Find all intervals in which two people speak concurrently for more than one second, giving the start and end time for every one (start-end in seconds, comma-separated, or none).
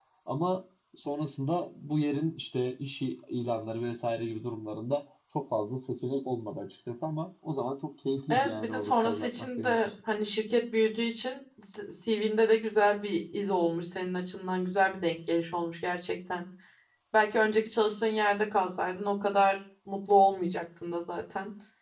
8.3-9.9